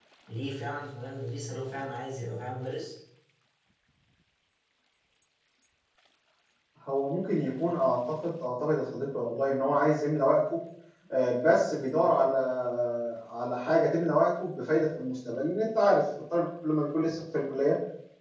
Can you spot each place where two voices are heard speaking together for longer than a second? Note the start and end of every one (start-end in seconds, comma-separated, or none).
none